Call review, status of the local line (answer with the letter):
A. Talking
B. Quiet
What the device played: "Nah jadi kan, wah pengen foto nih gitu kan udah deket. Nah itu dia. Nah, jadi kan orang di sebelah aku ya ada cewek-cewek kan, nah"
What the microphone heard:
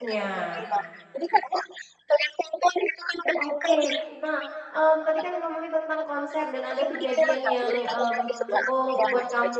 A